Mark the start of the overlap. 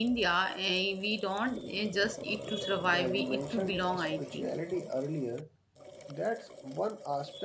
2.9 s

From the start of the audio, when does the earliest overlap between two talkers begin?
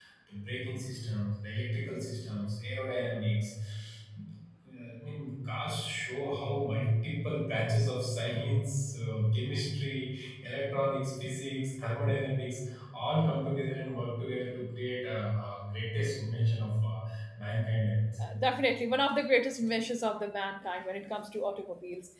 none

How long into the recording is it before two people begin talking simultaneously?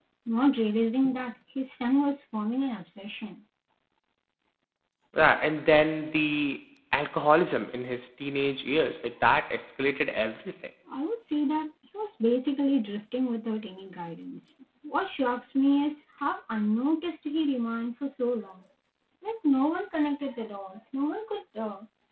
none

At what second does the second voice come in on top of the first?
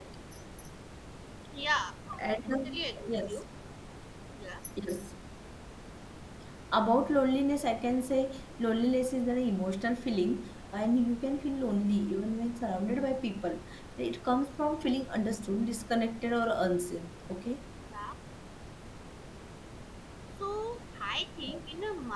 2.2 s

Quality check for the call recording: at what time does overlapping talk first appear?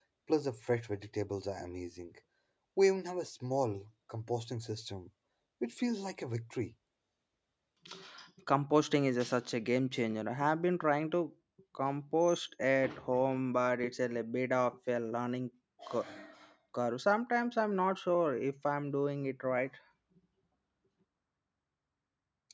none

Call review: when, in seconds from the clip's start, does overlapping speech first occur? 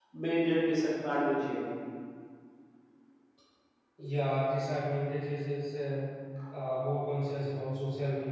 none

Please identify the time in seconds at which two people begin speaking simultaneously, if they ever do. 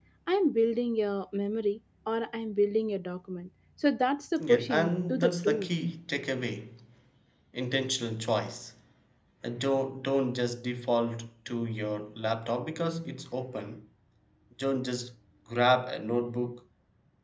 4.4 s

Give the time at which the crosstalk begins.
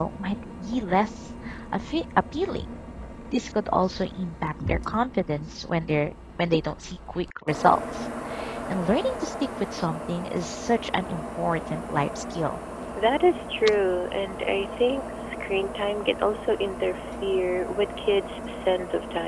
none

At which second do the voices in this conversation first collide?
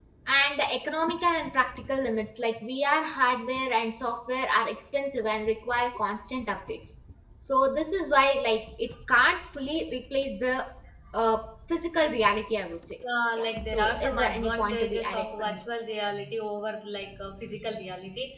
13.4 s

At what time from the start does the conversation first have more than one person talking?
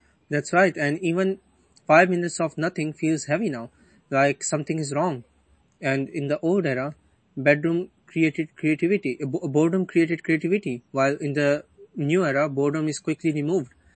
none

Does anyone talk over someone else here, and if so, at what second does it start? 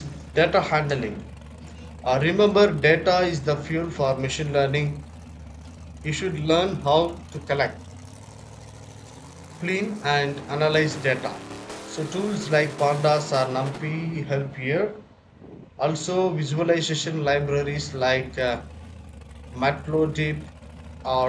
none

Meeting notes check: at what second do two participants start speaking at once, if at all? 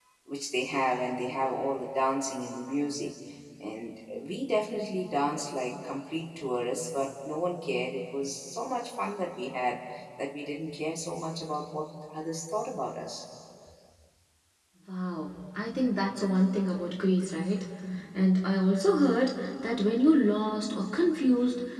none

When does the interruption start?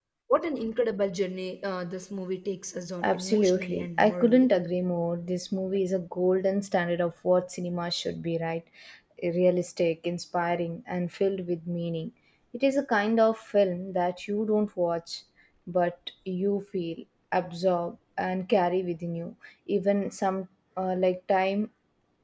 3.0 s

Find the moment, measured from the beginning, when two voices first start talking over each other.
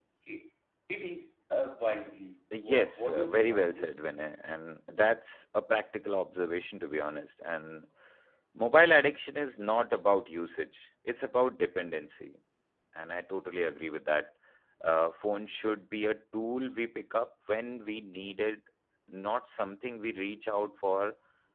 2.5 s

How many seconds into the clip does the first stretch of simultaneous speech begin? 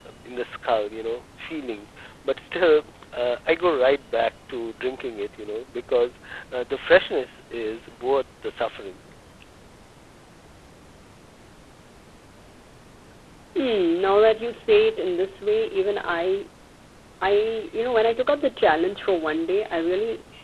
none

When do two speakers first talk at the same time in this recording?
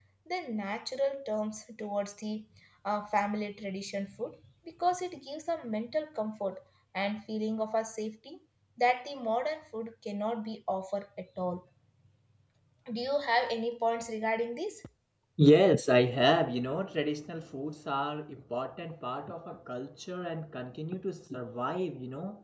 none

